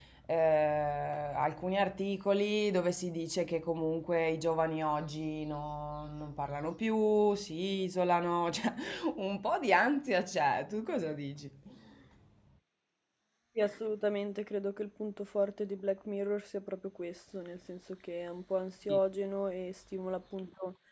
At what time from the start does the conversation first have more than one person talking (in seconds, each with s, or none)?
none